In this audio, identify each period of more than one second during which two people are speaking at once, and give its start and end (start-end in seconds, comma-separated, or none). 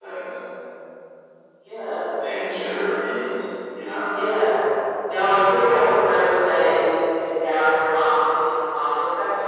none